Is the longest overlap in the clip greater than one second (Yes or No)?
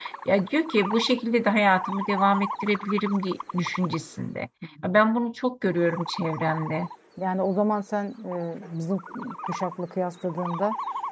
No